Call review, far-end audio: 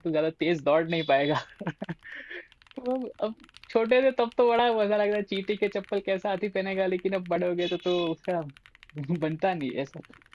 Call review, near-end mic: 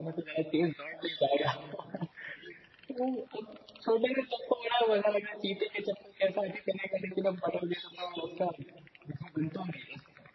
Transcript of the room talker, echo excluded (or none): none